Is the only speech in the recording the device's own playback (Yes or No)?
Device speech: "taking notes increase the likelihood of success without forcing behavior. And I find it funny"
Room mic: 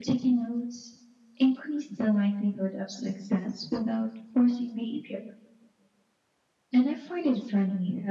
Yes